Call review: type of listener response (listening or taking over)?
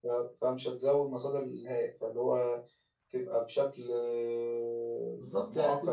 taking over